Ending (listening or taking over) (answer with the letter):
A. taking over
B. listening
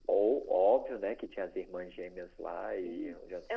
A